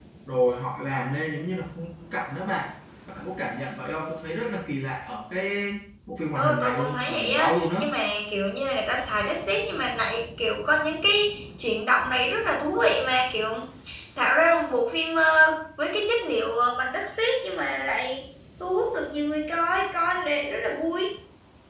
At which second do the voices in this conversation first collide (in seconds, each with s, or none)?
6.3 s